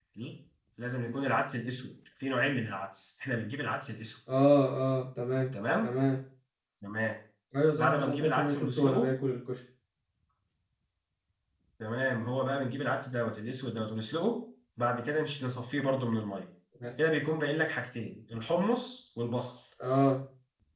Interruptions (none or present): present